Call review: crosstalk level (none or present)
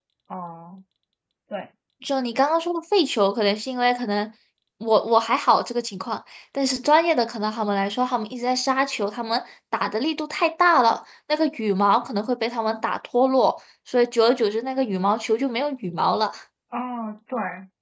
none